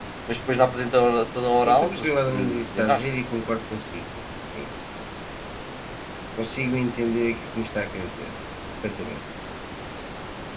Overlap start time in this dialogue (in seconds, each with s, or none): 1.6 s